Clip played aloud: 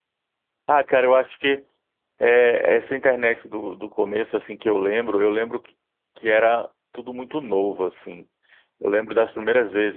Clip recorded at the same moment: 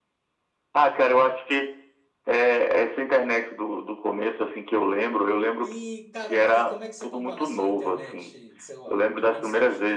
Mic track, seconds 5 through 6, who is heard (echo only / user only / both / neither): both